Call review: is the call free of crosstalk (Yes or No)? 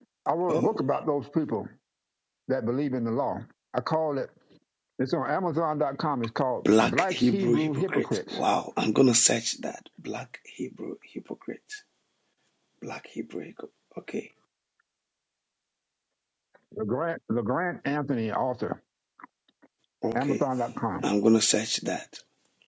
No